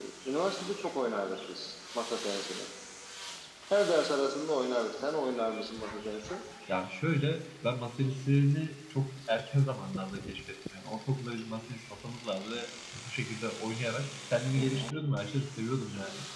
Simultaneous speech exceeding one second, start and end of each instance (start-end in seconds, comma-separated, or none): none